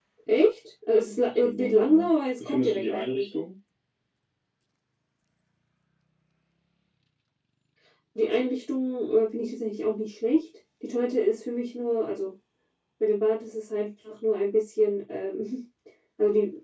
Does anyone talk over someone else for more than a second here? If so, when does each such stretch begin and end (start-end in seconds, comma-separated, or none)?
1.4-3.3